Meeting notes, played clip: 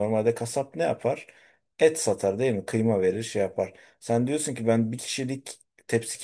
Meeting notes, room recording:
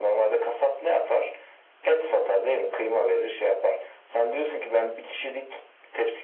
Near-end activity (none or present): none